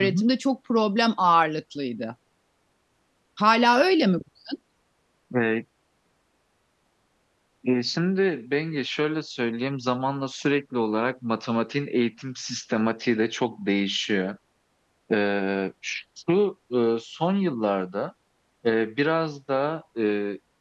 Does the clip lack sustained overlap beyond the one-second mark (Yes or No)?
Yes